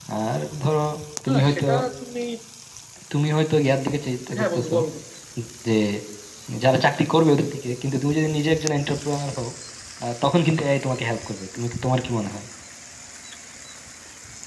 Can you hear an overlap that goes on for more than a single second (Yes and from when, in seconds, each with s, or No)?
No